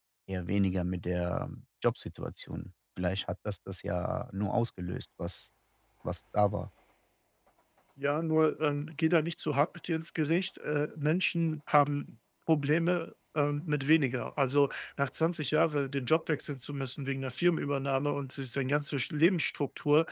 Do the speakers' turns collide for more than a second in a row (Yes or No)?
No